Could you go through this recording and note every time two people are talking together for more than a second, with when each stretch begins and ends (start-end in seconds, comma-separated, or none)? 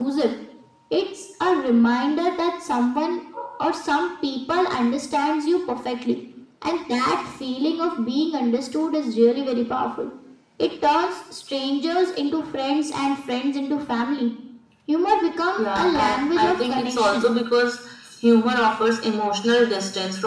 15.6-17.3